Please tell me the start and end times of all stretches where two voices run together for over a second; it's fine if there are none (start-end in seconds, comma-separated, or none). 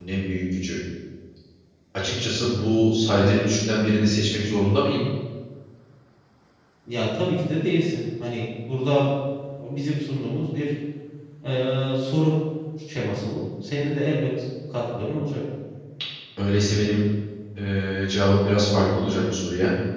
none